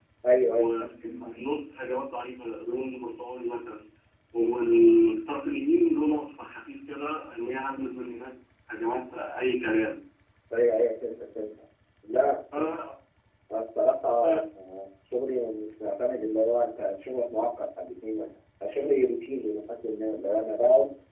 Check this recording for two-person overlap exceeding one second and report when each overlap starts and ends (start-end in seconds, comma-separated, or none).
none